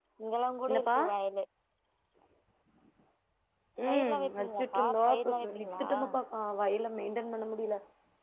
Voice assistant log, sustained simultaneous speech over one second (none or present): present